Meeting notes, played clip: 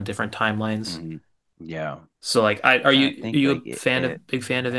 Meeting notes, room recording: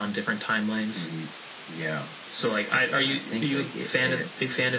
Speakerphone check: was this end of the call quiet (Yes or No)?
Yes